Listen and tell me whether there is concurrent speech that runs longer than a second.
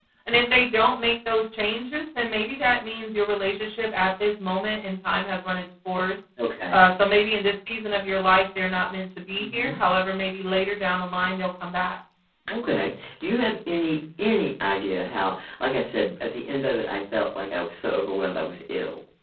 No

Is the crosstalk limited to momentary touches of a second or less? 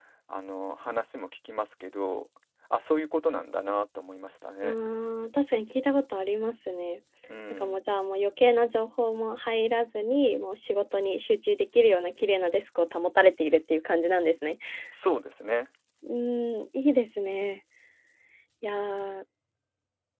Yes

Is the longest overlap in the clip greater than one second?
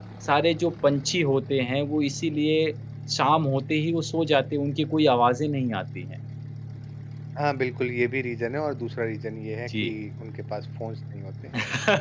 No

